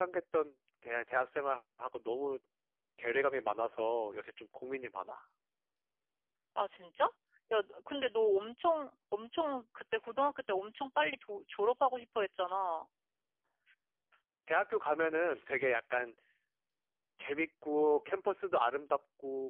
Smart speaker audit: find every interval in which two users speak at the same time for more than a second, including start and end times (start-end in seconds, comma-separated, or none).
none